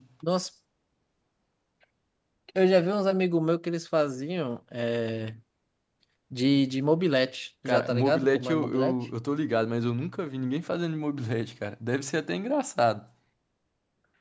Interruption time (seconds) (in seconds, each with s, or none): 7.6 s